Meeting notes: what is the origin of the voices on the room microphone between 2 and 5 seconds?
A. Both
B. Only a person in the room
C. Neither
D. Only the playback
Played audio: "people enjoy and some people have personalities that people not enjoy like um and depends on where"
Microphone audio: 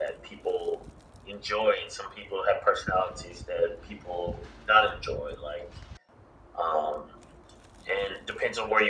D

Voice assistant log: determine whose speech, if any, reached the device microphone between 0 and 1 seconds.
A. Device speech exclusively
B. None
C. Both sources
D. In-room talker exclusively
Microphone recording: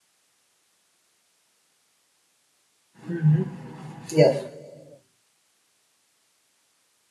B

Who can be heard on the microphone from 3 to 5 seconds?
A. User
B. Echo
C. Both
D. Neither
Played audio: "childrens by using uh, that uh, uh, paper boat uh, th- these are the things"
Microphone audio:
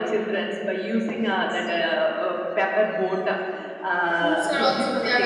C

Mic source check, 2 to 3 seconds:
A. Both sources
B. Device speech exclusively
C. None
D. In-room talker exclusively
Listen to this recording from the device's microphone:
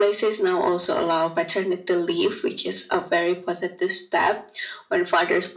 B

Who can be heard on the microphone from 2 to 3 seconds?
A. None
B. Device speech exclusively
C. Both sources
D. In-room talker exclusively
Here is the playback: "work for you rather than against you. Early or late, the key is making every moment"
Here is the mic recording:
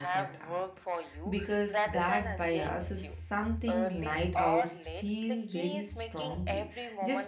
C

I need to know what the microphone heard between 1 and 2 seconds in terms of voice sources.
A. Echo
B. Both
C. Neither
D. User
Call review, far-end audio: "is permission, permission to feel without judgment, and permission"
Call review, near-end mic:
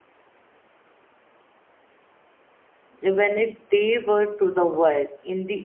C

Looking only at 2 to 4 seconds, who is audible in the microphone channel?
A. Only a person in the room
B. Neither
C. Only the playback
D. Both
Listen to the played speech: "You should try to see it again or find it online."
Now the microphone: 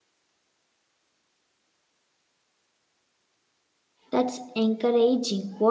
B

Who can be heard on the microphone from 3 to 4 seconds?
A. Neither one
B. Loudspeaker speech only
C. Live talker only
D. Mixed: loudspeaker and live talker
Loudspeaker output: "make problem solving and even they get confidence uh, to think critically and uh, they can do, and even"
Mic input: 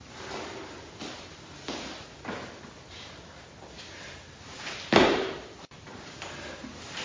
A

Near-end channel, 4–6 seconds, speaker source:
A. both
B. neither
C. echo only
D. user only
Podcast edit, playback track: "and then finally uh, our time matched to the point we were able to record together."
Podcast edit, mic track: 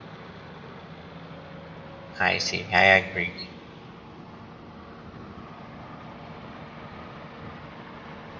B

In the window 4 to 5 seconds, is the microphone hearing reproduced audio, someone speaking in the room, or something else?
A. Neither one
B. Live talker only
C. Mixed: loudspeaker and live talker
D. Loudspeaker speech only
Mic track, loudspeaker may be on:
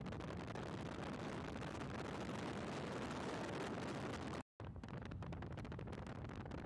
A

